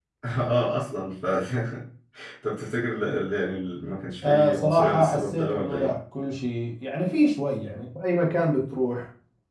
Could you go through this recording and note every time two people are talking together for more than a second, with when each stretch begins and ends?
4.2-5.9

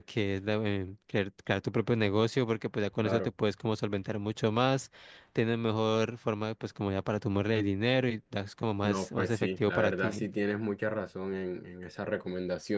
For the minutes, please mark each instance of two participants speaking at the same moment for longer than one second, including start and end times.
8.8-10.3

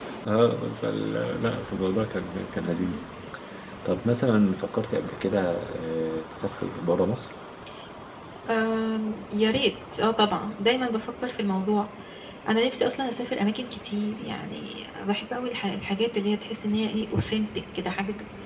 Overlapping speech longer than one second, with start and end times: none

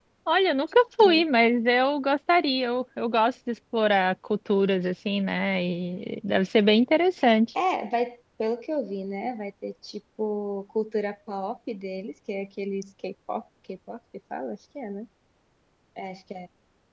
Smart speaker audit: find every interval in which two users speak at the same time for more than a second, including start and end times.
none

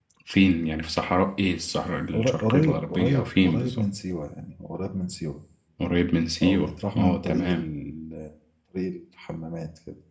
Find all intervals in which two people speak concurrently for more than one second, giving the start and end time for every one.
2.1-3.9, 6.4-7.7

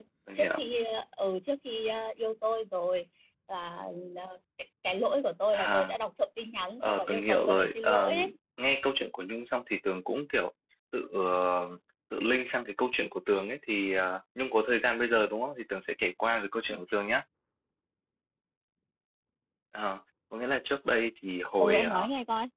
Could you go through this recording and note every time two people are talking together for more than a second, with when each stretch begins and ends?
6.8-8.1

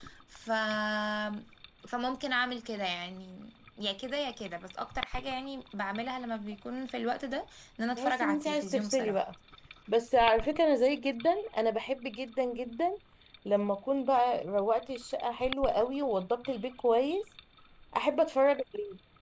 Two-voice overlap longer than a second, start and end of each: 8.0-9.2

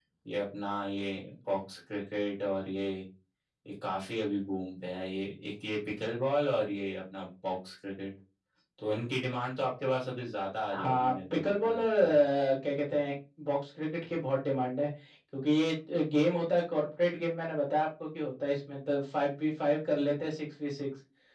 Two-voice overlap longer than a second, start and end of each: 10.8-12.2

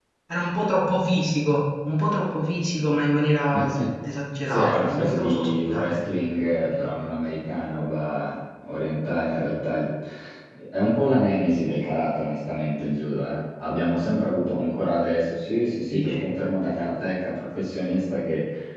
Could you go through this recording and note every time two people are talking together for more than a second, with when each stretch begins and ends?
4.5-6.0

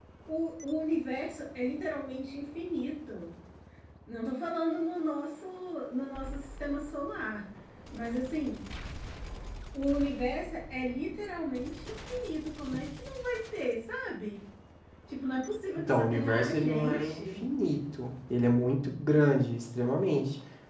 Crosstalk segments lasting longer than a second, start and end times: 15.8-17.4

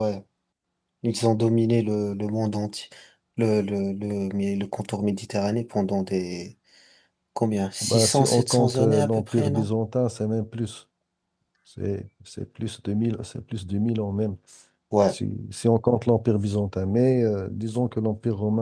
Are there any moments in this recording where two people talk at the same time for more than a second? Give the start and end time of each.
7.8-9.7

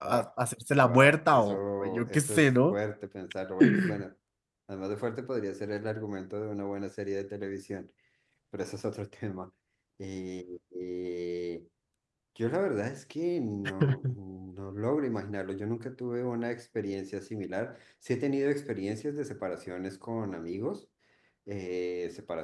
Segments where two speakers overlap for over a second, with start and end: 0.8-2.8

